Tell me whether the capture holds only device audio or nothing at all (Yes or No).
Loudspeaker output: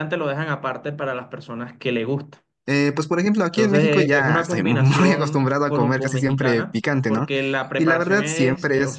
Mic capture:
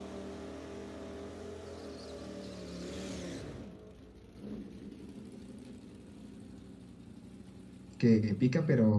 No